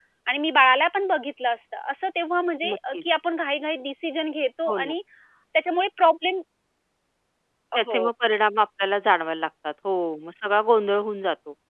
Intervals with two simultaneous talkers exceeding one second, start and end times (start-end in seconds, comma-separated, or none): none